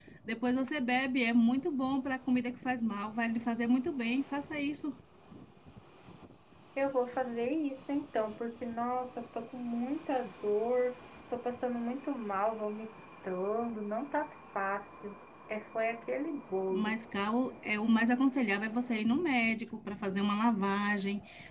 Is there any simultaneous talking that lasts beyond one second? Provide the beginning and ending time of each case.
none

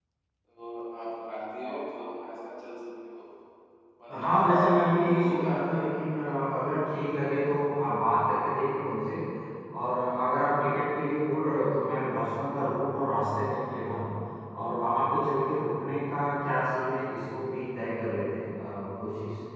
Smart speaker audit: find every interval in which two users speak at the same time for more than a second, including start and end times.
4.1-6.5

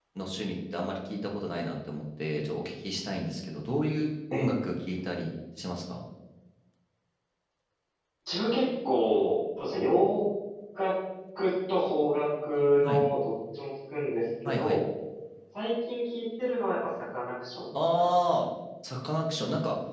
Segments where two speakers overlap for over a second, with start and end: none

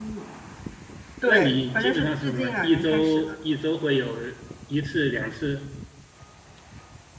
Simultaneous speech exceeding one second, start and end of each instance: 1.3-3.3

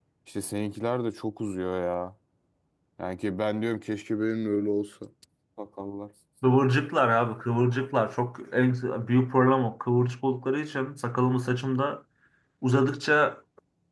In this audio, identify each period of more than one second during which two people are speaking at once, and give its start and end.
none

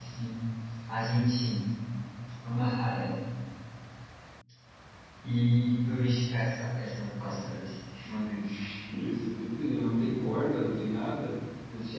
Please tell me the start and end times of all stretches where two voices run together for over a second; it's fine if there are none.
none

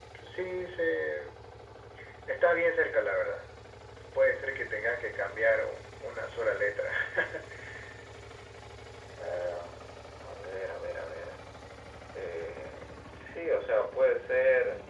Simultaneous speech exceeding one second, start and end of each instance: none

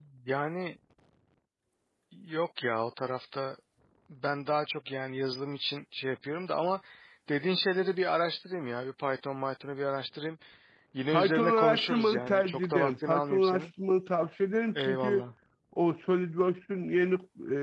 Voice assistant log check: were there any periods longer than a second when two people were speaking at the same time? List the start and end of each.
11.1-13.7

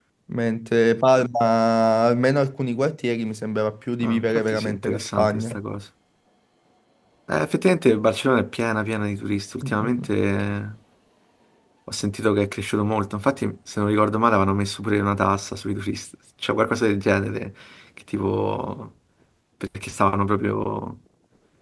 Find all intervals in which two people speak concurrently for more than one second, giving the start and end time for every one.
4.0-5.6

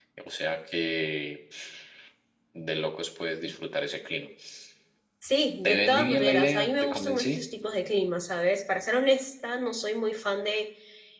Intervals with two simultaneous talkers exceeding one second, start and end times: 5.6-7.4

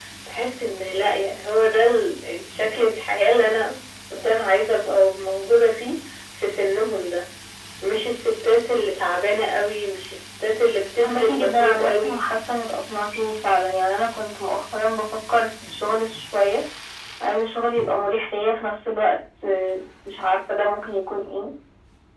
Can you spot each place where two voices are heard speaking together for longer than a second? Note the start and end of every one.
11.0-12.2

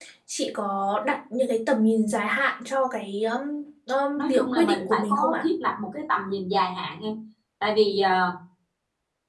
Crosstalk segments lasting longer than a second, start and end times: 4.2-5.5

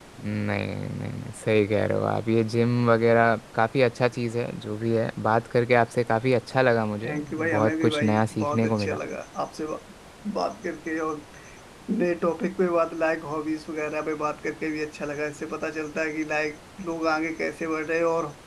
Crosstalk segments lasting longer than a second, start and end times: 7.0-9.0

